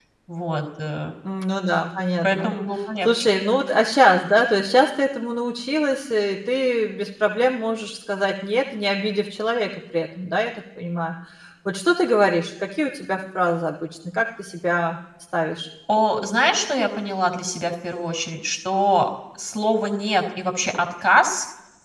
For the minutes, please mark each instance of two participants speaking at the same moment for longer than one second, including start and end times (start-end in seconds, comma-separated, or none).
none